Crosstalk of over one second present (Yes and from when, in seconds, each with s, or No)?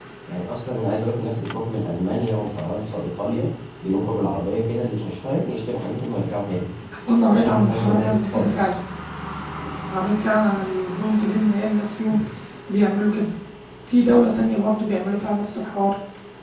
Yes, from 7.3 s